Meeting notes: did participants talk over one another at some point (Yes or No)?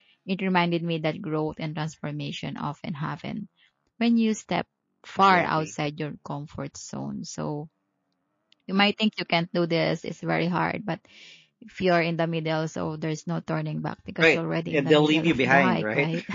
Yes